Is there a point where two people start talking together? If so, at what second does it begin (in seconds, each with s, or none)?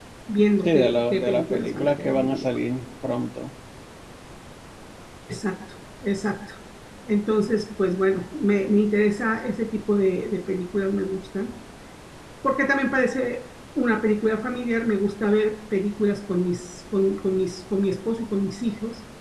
0.6 s